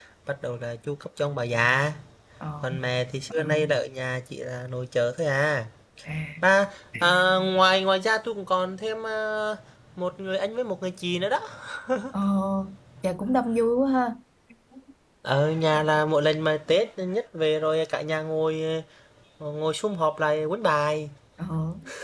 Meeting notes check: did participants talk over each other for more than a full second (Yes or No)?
No